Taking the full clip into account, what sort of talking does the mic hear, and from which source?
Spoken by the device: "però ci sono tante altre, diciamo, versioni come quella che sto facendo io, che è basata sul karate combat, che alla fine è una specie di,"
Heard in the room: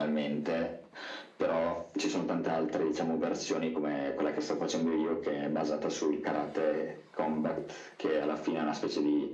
echo only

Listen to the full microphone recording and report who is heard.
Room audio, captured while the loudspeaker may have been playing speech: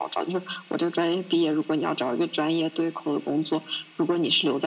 echo only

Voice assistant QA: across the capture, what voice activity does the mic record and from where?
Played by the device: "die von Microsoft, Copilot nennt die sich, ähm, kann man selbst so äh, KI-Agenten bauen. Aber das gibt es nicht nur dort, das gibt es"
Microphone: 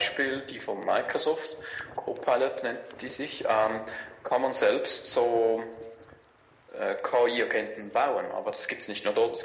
echo only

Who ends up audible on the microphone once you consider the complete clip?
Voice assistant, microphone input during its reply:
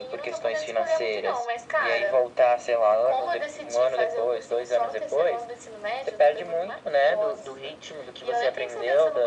echo only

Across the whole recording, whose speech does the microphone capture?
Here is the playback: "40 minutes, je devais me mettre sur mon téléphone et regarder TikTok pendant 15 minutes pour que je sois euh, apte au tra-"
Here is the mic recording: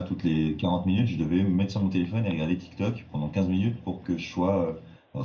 echo only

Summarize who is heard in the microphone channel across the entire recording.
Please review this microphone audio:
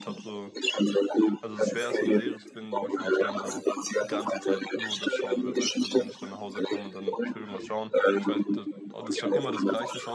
both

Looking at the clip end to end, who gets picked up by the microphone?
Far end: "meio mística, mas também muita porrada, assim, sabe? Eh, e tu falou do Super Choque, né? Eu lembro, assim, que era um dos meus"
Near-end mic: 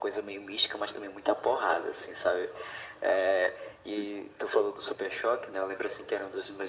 echo only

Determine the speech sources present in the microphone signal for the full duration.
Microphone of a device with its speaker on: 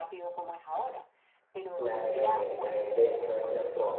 both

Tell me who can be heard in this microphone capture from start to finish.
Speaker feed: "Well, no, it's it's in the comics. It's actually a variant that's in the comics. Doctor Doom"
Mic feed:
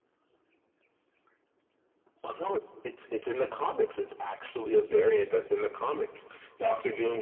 echo only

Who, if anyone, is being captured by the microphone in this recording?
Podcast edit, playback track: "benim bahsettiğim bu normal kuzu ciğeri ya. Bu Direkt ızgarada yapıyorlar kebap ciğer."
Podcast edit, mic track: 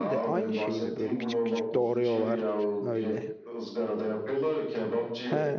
both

